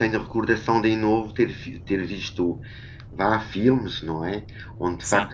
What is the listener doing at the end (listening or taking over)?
listening